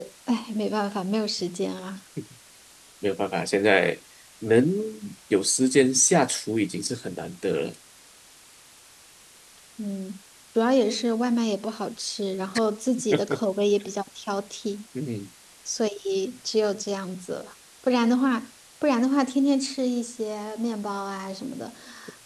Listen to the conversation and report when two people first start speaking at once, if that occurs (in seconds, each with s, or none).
none